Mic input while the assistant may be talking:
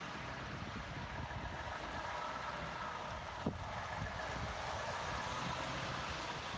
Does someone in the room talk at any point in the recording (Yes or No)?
No